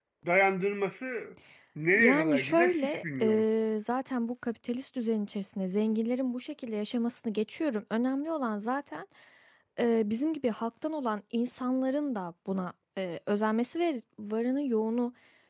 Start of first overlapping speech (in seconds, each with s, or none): 1.9 s